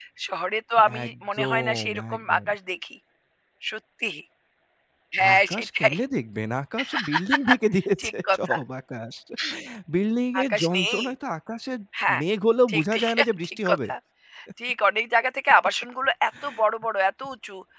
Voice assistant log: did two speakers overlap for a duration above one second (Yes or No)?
Yes